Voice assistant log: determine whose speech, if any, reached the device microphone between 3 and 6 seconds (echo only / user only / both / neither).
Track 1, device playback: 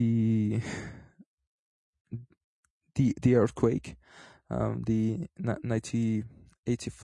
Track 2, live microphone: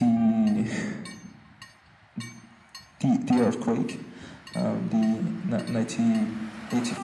echo only